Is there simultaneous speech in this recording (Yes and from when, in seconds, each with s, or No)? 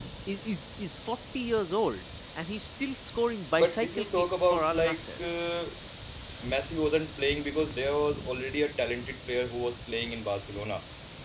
Yes, from 3.6 s